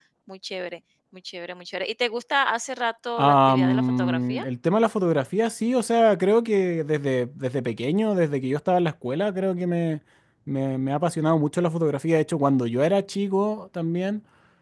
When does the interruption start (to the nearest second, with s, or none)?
3 s